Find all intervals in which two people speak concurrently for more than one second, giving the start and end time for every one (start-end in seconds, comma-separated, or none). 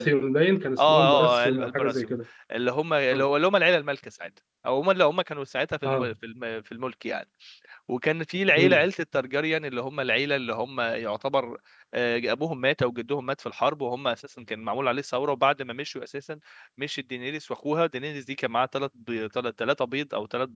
0.8-2.1